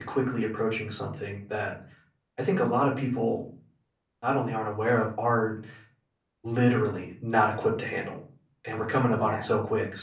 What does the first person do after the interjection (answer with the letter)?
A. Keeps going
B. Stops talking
A